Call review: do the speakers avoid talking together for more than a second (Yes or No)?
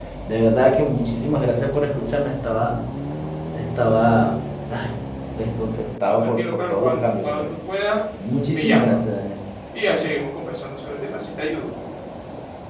No